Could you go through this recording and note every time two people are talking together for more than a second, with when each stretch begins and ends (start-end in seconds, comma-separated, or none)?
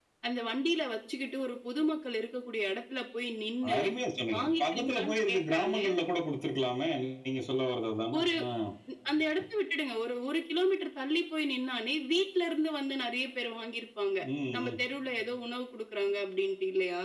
4.3-5.9